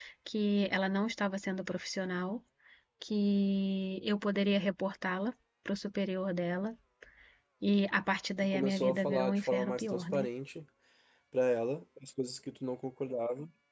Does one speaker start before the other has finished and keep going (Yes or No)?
Yes